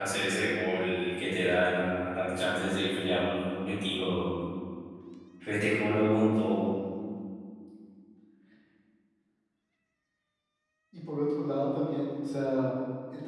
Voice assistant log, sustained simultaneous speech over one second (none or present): none